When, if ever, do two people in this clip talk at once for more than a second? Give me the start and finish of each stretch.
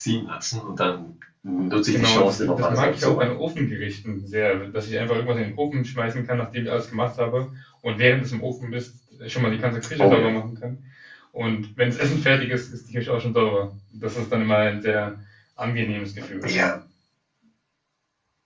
1.9-3.3

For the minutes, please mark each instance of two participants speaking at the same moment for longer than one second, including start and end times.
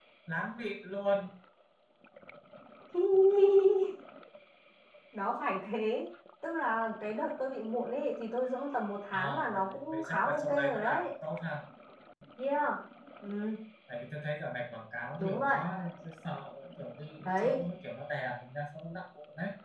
9.1-11.1

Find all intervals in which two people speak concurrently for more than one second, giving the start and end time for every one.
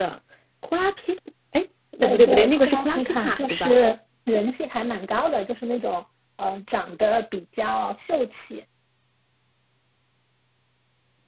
2.0-3.8

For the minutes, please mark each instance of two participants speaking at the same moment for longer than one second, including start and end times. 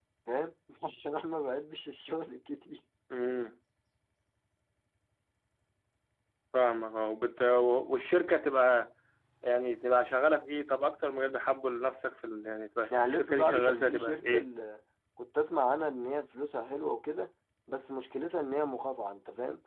13.0-14.4

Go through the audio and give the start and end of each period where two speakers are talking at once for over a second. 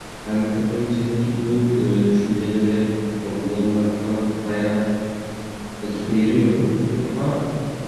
none

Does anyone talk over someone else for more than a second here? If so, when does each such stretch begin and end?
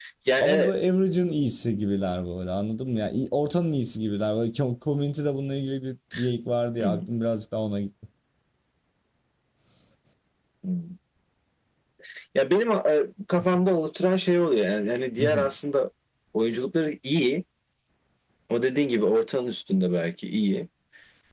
none

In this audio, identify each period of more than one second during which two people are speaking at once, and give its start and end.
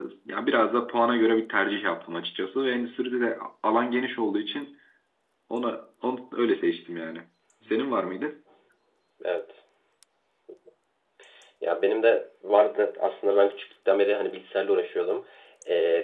none

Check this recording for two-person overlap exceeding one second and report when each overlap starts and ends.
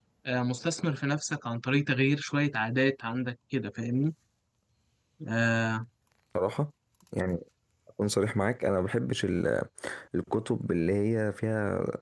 none

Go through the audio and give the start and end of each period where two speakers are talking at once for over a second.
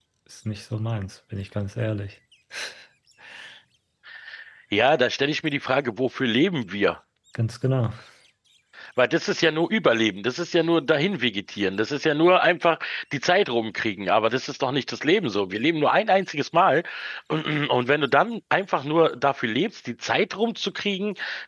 none

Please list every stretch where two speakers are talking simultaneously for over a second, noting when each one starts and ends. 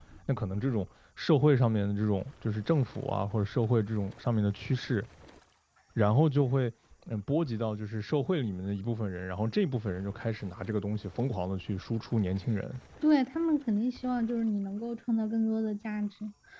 none

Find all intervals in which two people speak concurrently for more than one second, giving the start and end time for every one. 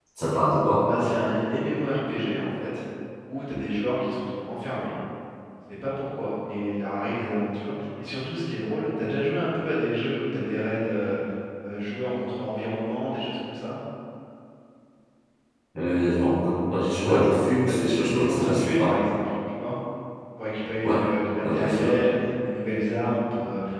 17.7-19.0

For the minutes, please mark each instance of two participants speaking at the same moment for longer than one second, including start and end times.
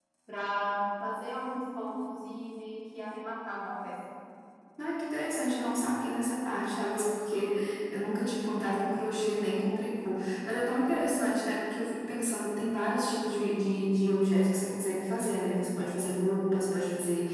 none

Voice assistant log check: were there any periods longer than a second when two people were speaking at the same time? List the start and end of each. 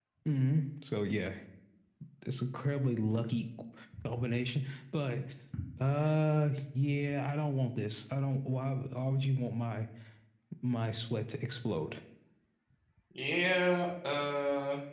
none

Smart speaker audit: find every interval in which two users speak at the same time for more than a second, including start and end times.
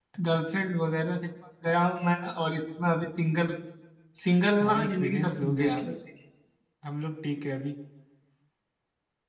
4.6-5.8

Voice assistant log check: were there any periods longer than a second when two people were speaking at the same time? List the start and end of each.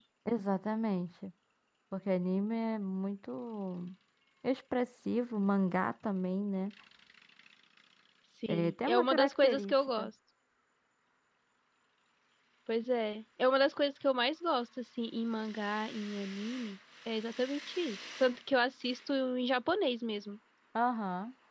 8.5-10.1

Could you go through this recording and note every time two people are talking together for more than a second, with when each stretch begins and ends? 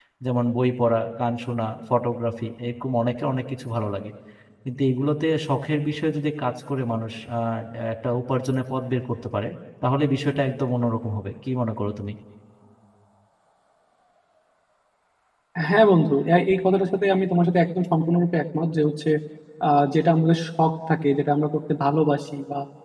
none

